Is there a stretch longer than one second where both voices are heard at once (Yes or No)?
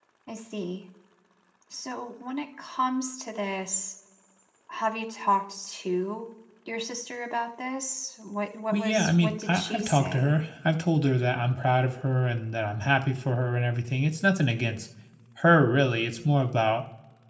Yes